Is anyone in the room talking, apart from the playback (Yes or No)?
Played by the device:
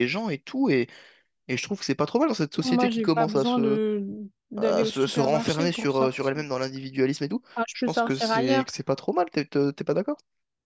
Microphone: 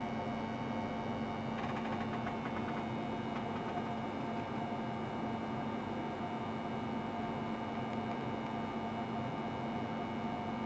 No